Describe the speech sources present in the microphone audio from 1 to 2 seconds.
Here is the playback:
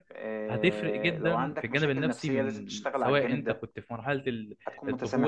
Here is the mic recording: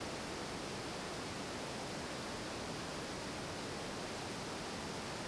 neither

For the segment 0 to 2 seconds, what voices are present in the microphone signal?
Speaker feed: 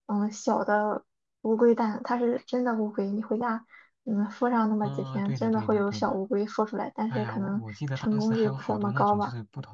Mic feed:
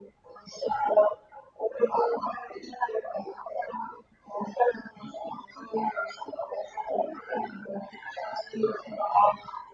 echo only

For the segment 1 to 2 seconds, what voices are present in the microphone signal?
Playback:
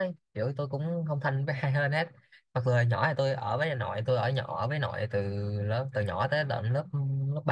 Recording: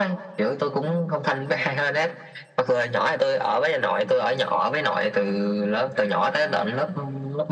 echo only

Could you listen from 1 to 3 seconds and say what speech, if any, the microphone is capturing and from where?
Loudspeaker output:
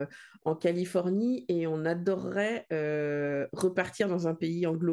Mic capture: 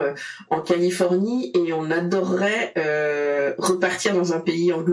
echo only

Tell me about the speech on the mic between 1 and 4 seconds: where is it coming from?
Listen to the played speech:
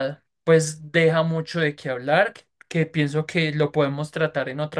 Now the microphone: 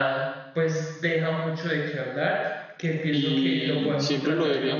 both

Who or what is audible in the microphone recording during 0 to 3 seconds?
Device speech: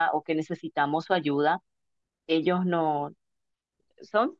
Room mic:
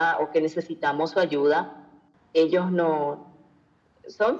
echo only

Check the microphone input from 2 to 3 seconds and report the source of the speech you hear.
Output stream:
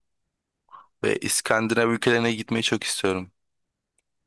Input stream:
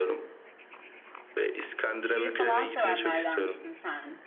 both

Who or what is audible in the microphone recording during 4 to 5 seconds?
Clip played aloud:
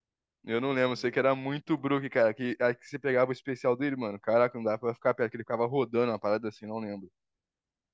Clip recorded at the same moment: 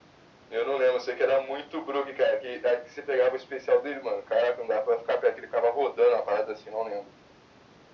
echo only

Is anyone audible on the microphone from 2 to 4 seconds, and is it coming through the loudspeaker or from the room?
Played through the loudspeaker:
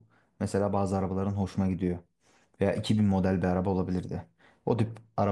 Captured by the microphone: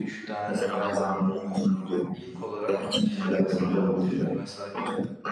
both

